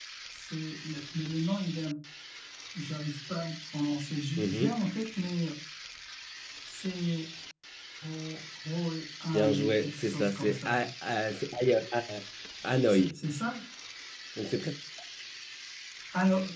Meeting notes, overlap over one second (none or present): present